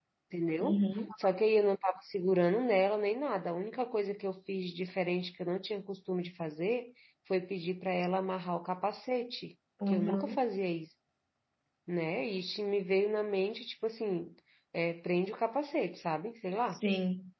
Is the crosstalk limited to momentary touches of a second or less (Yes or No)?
Yes